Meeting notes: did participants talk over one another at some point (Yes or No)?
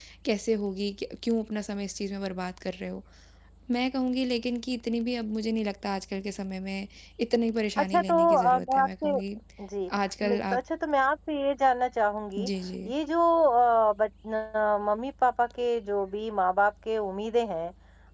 Yes